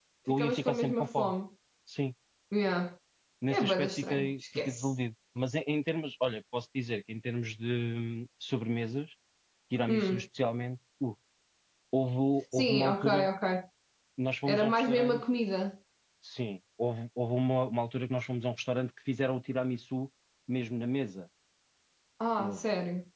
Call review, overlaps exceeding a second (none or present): present